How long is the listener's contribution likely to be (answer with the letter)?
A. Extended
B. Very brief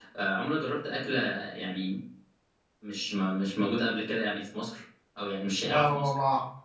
A